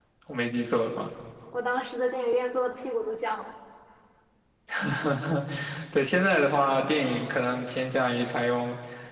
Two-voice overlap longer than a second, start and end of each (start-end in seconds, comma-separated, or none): none